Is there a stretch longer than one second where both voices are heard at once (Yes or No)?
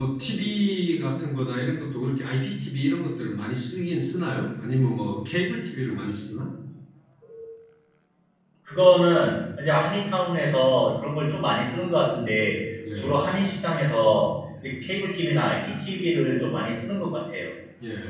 No